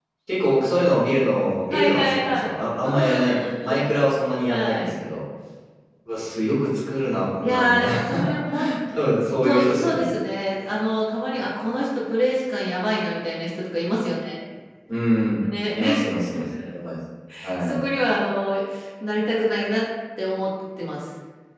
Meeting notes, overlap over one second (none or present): present